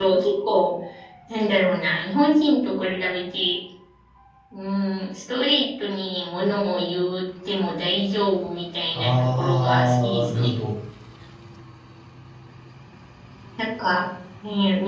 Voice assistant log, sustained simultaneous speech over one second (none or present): present